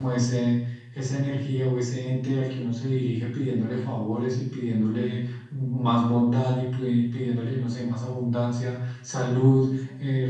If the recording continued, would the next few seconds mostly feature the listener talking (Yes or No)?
No